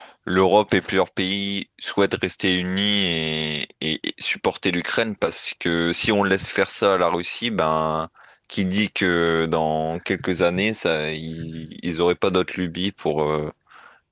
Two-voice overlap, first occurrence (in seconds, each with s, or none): none